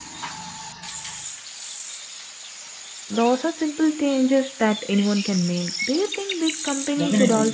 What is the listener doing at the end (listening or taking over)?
taking over